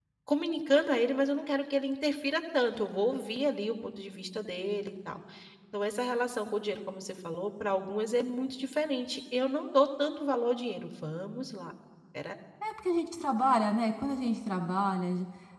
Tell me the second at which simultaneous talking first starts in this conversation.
none

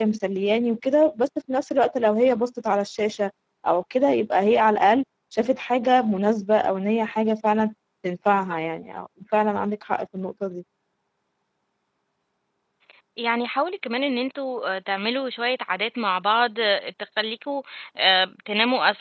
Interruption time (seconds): none

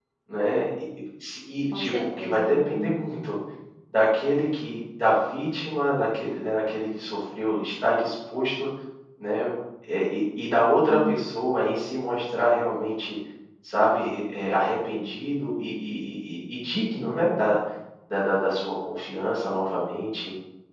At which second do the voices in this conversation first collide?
1.7 s

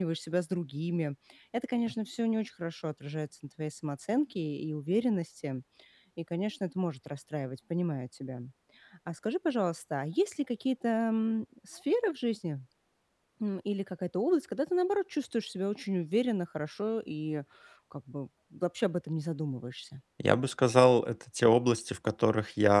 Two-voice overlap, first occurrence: none

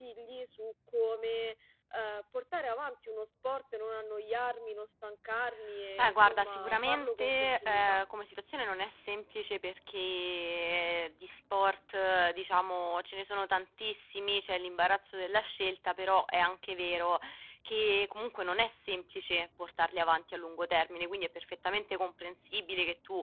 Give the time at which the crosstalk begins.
6.0 s

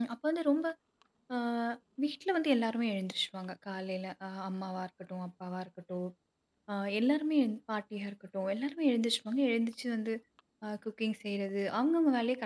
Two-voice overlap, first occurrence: none

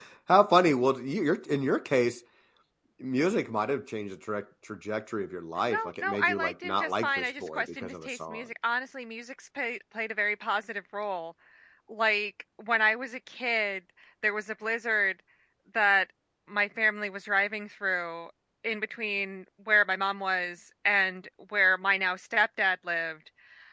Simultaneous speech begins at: 5.7 s

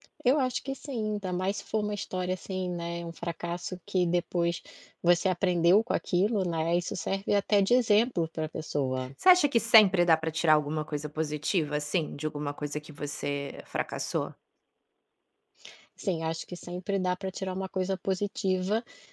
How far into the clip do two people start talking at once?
none

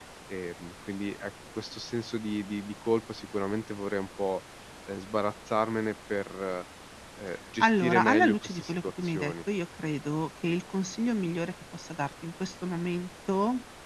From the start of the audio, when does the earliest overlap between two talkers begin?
7.6 s

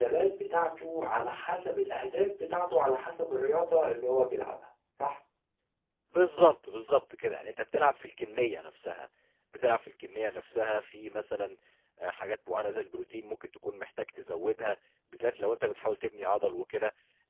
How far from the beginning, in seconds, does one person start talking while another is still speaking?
none

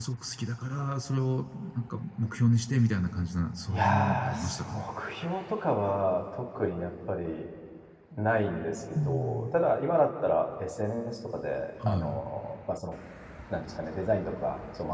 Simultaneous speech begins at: 3.7 s

